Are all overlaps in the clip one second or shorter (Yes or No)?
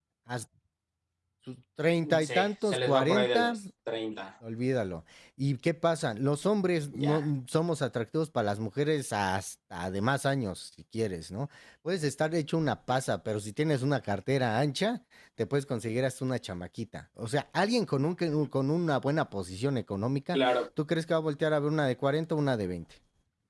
No